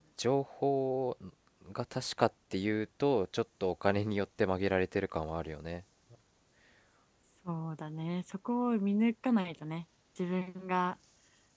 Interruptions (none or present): none